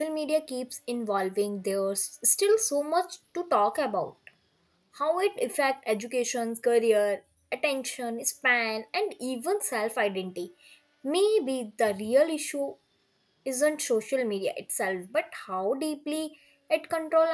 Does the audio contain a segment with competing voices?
No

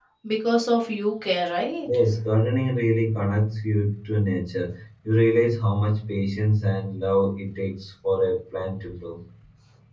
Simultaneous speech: No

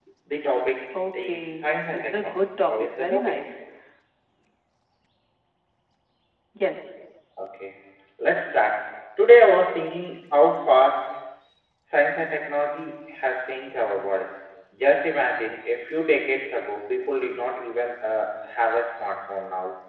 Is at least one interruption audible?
Yes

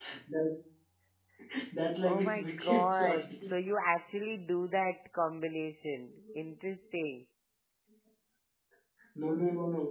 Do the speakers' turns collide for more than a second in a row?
Yes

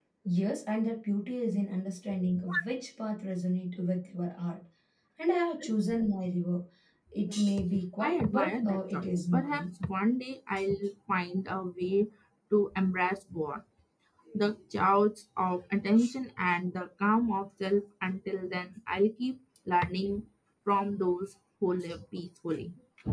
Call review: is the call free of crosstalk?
No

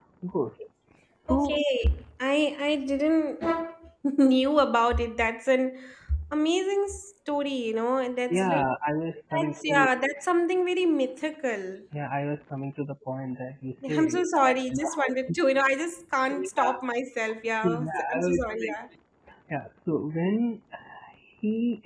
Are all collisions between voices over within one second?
No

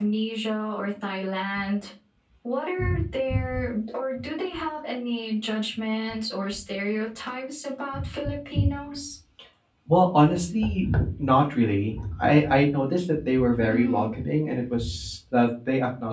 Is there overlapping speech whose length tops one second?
No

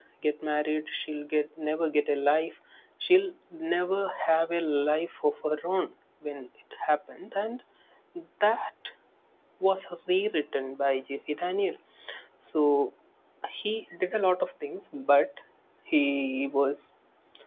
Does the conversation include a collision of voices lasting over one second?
No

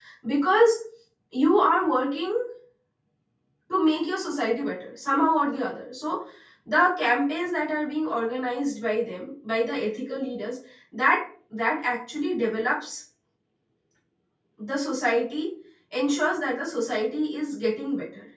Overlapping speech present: No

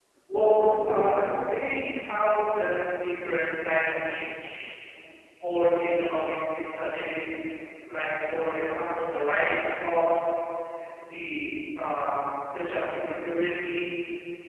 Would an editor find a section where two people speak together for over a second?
Yes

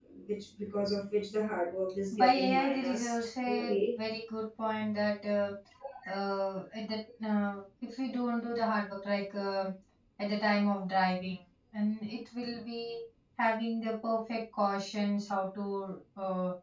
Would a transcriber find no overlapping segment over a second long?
No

